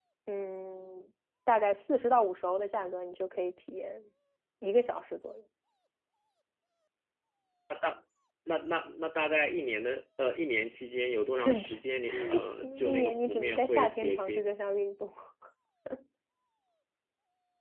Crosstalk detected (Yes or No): Yes